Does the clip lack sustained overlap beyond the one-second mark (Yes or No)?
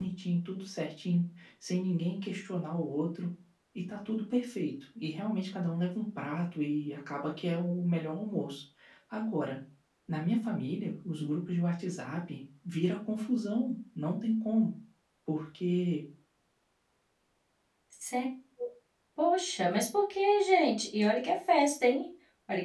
Yes